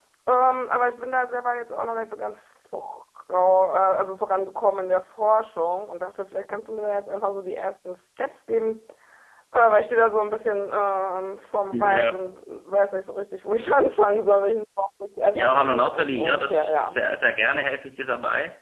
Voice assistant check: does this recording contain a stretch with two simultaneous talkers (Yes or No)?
Yes